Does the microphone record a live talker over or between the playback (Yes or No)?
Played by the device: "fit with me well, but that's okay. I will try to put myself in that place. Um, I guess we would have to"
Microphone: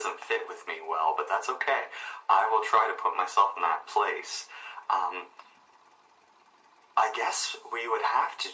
No